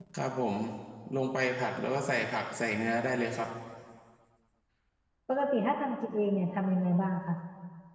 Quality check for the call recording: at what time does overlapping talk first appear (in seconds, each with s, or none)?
none